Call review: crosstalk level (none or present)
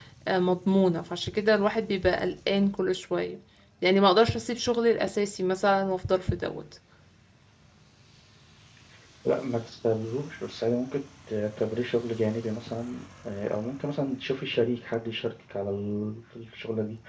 none